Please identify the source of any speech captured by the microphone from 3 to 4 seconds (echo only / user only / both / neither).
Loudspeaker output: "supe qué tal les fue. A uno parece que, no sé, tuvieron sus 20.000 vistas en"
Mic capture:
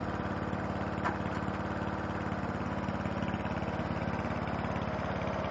neither